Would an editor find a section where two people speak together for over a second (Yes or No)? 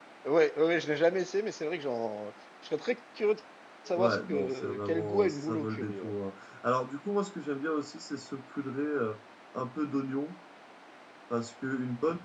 Yes